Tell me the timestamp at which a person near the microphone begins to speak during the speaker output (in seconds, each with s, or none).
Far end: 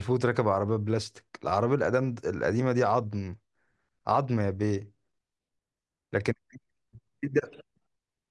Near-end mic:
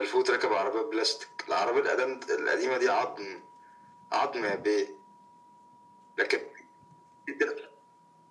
none